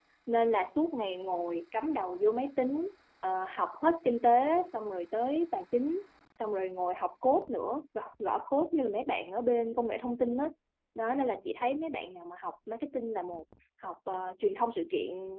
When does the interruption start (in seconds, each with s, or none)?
none